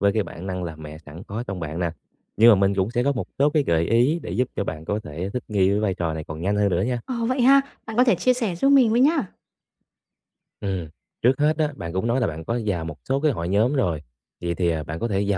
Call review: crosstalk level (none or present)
none